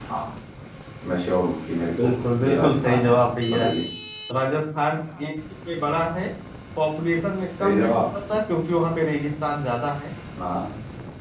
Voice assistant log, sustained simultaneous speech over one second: present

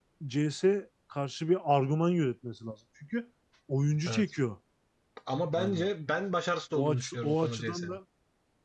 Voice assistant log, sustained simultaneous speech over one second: present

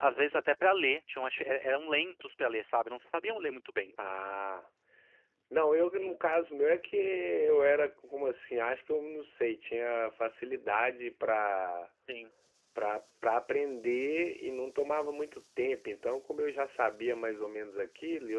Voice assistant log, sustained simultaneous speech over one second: none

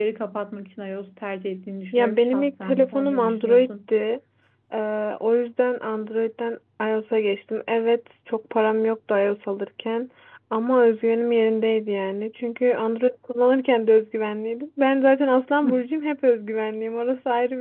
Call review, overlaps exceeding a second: present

